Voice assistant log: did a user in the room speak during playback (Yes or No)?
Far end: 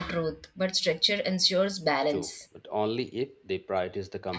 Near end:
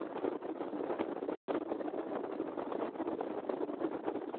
No